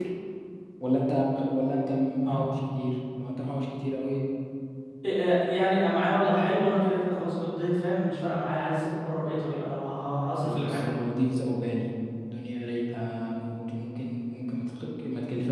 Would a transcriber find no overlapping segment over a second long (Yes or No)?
Yes